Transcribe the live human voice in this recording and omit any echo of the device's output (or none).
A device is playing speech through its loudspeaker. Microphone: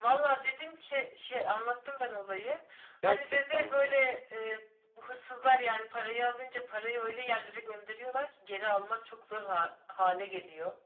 Gerçekten mi?